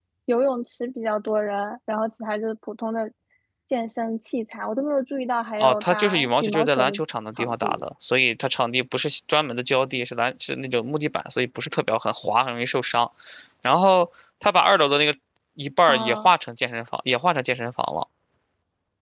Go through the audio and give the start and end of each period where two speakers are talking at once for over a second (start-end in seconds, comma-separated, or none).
5.6-7.0